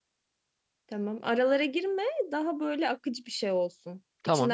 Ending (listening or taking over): taking over